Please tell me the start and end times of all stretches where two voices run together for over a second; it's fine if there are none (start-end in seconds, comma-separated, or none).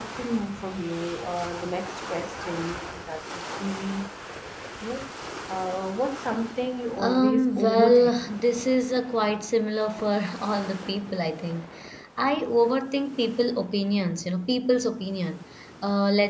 7.0-8.2